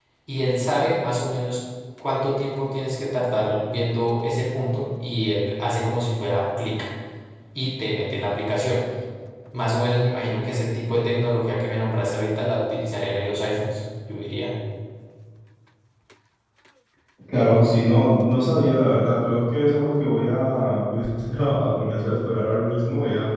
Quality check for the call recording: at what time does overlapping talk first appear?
none

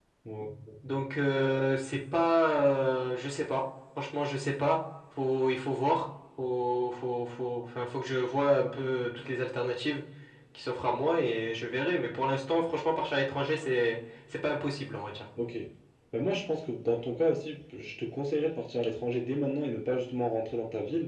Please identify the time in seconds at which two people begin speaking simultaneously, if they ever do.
none

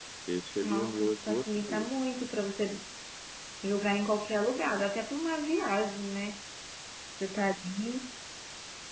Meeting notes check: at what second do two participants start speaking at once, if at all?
1 s

